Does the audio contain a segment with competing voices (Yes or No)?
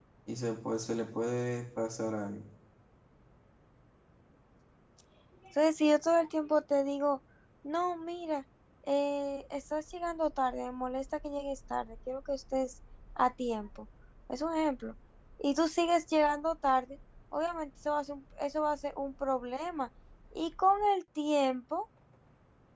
No